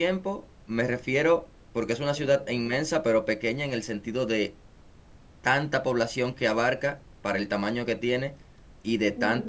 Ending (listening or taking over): listening